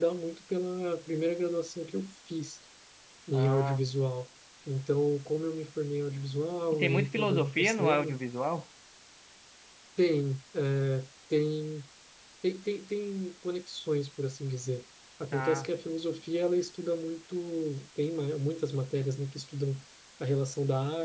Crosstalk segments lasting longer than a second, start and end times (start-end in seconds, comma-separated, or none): 6.7-8.2